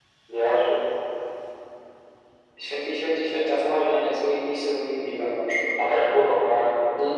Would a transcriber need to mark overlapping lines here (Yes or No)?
No